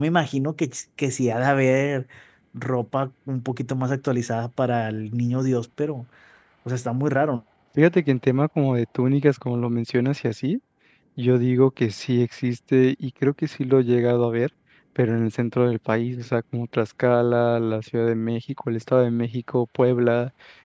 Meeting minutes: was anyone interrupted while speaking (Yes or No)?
No